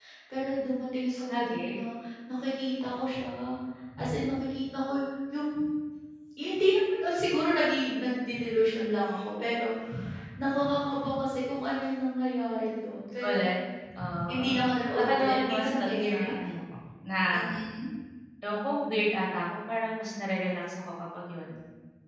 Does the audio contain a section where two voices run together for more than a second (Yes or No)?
Yes